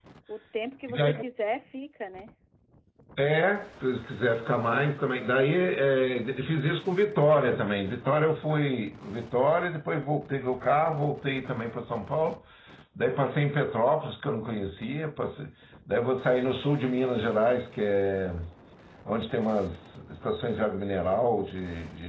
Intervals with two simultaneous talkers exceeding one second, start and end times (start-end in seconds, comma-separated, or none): none